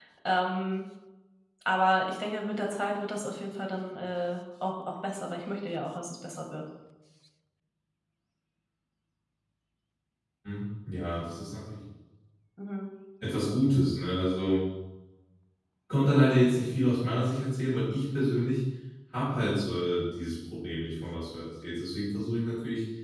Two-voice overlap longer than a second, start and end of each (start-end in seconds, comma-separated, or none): none